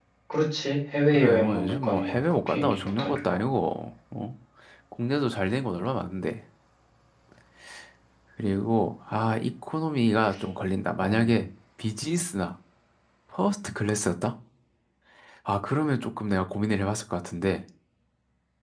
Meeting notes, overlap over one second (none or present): present